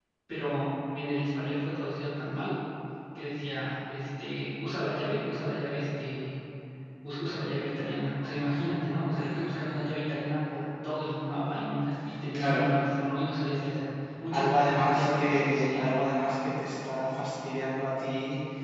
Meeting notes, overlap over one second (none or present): present